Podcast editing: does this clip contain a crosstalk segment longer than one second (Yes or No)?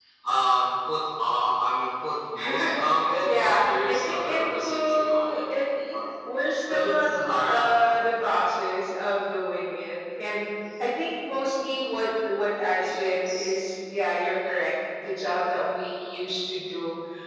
Yes